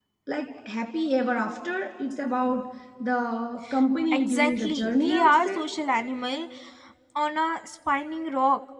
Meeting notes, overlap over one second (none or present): present